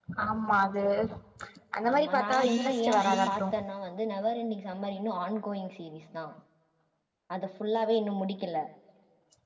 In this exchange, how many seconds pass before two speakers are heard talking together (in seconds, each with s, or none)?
1.9 s